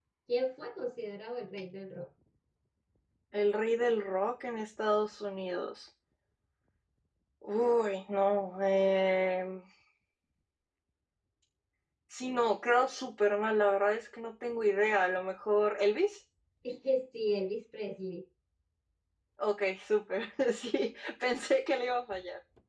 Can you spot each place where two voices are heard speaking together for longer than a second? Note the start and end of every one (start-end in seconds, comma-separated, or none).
none